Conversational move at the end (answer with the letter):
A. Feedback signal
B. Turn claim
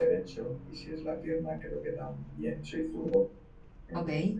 A